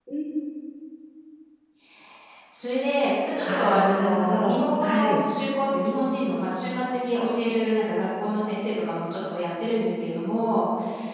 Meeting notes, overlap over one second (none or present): present